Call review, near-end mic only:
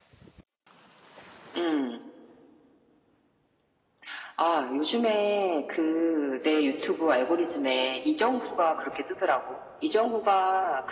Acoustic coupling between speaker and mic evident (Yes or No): Yes